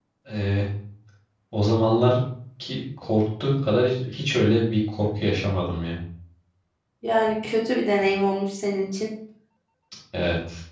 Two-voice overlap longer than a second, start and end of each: none

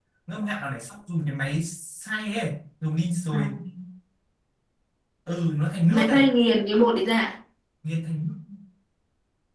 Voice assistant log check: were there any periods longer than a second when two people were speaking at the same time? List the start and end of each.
none

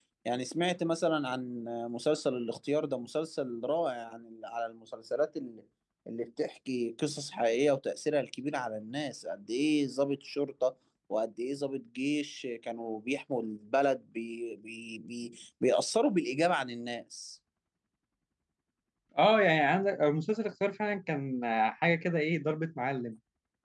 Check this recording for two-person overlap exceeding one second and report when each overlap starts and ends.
none

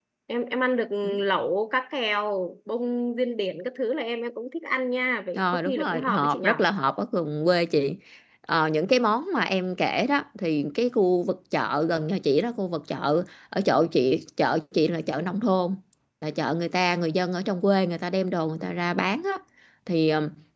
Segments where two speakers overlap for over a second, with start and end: 5.3-6.5

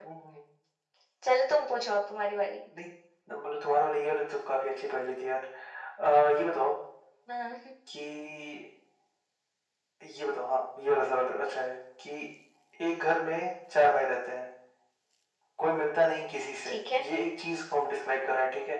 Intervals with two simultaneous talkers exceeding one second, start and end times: none

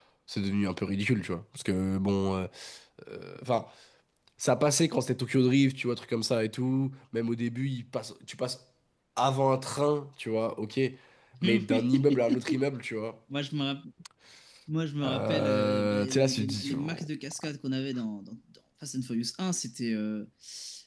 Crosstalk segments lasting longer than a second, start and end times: 11.4-12.6, 15.0-17.1

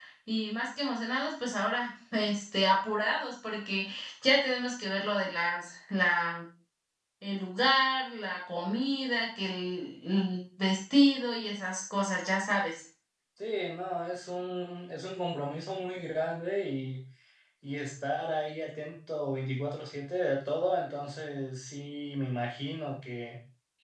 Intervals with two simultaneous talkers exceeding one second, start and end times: none

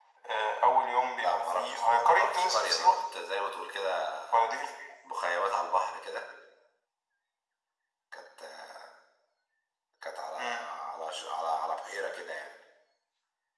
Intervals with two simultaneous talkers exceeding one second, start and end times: 1.2-2.9

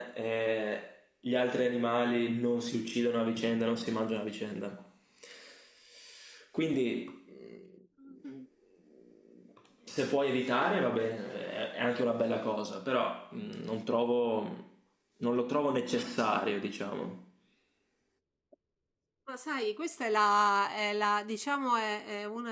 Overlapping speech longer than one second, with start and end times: none

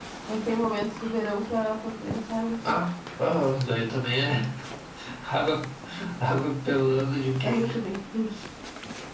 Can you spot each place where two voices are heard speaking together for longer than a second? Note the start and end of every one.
none

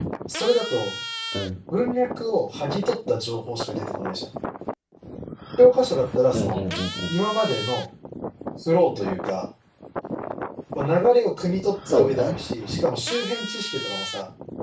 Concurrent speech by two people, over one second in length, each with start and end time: none

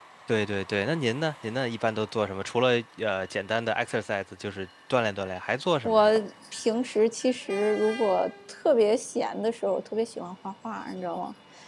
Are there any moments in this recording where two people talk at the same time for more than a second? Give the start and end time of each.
none

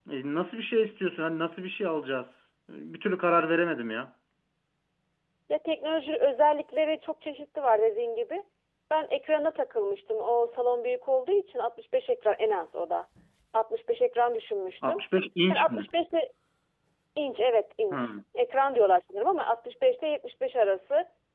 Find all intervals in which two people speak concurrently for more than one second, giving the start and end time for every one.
none

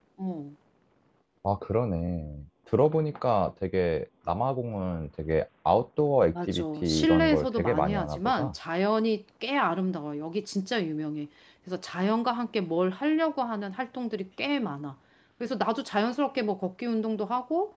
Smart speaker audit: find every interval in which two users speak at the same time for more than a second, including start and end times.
6.3-8.5

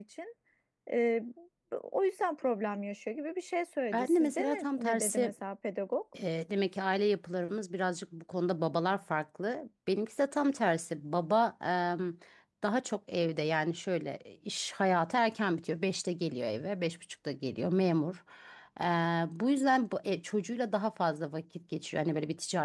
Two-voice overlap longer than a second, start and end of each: 3.9-5.3

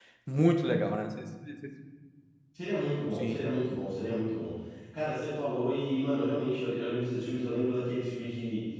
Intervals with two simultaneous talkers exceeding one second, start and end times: none

